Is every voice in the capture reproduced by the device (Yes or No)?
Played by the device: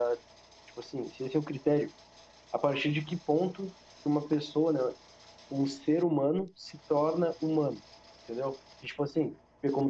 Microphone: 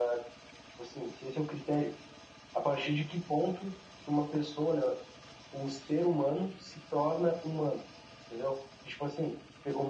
Yes